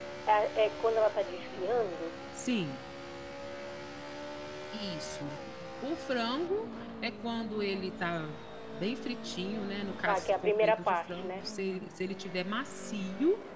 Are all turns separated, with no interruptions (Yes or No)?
No